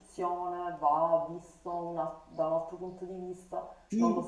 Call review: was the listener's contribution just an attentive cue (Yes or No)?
No